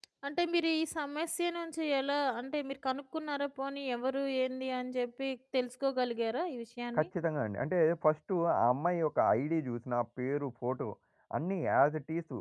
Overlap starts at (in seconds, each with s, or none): none